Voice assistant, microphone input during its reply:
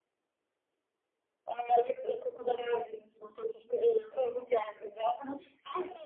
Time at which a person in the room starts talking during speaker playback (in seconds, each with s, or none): none